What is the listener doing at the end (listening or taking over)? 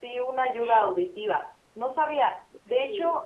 listening